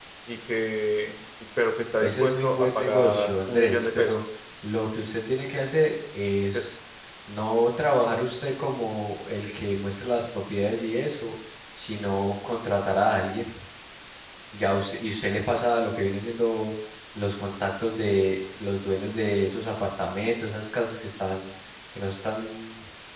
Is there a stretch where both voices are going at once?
Yes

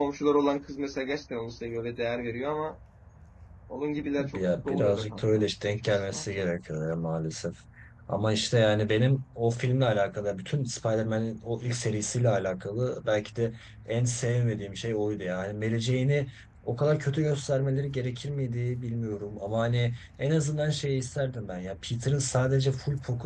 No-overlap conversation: No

